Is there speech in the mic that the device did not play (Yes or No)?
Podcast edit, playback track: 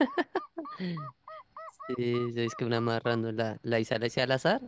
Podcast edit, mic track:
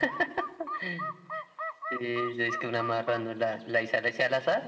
No